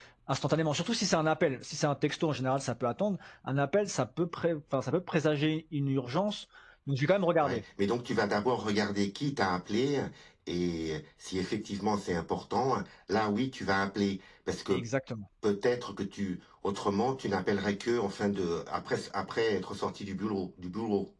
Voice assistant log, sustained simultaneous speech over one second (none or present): none